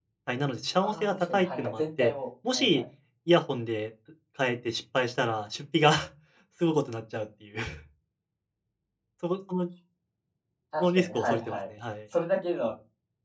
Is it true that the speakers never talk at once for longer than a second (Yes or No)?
No